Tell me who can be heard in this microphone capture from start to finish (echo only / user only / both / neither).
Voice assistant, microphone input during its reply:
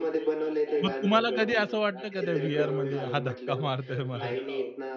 both